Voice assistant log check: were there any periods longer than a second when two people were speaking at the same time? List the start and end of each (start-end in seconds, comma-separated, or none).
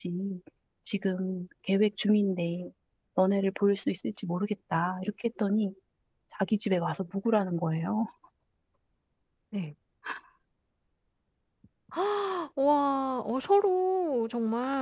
none